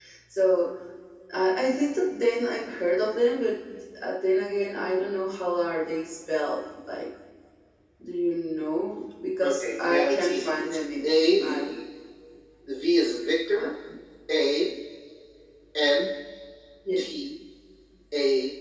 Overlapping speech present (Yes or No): Yes